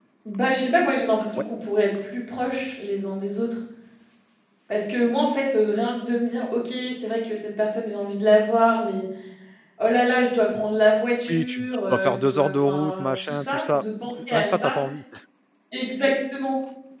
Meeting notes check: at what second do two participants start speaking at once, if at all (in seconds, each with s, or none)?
11.3 s